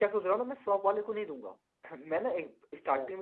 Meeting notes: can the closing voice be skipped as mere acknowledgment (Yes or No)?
Yes